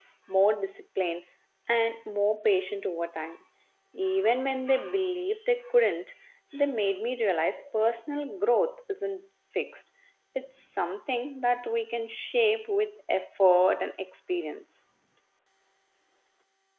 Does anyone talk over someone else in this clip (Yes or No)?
No